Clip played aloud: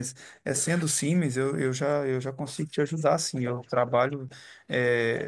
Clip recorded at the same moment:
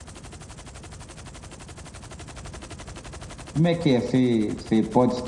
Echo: none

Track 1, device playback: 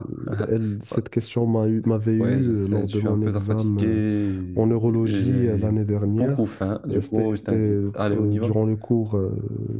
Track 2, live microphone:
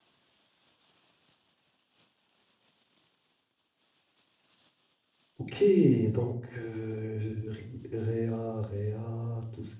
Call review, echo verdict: none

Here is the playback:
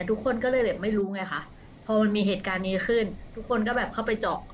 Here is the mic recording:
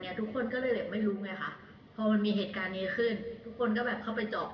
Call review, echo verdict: present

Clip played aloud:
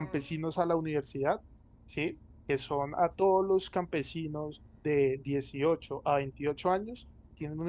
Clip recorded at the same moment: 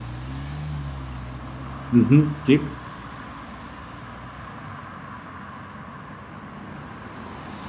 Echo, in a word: none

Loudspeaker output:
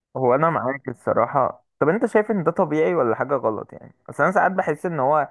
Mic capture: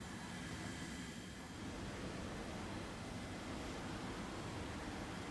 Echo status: none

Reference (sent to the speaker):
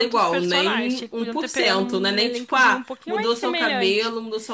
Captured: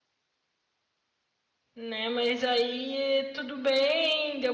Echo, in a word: none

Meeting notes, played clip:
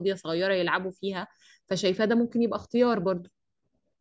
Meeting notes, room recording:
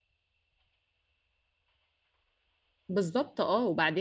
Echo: none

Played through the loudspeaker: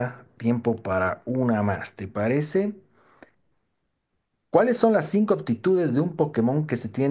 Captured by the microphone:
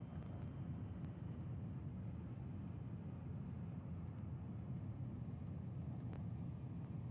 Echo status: none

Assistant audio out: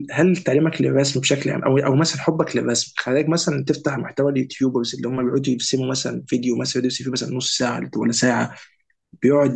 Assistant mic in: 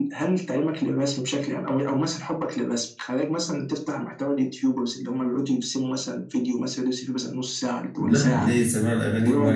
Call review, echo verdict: present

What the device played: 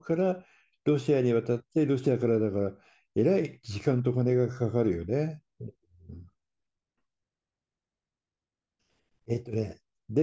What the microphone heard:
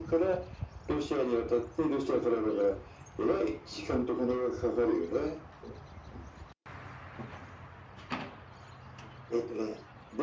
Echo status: present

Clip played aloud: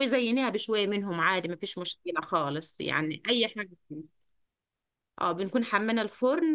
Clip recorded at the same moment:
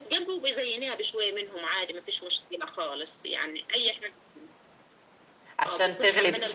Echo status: present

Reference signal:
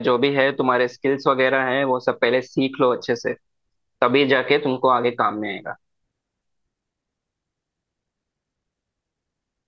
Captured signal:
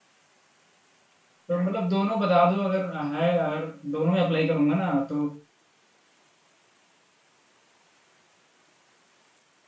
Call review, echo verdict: none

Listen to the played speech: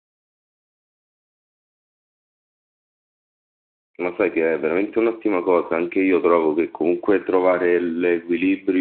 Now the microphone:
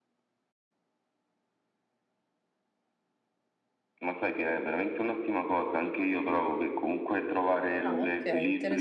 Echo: present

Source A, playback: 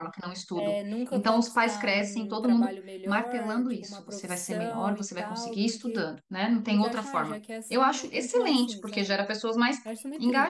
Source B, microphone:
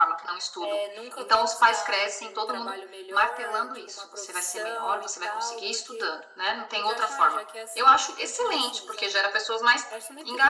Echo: present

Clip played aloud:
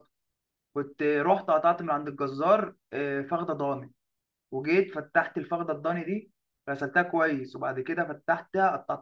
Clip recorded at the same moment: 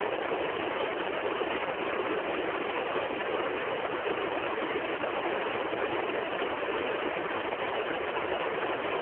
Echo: none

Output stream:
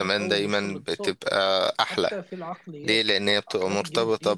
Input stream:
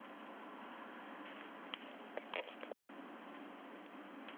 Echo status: none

